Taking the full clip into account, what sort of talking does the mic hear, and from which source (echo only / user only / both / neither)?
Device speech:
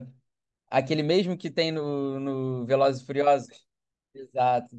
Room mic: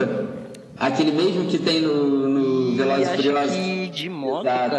both